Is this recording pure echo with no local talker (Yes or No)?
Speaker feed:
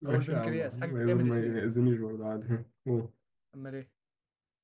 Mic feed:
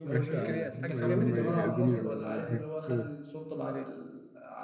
No